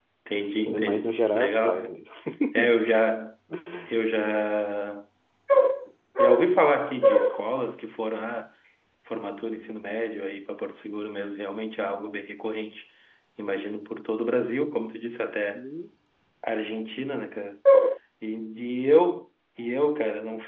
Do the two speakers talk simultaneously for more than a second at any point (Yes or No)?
Yes